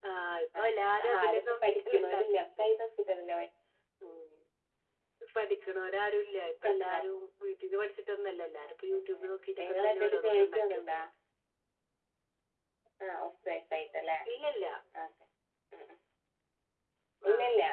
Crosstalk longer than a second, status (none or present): present